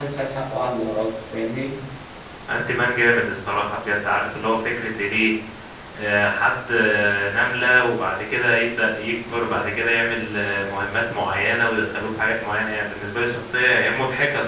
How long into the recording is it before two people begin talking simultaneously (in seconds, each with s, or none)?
none